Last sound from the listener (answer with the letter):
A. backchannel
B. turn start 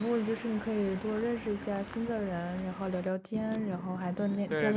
B